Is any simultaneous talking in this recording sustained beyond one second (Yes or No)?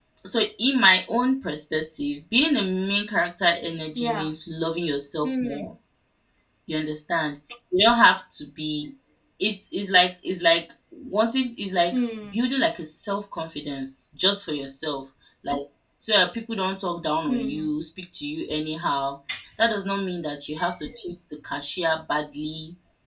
No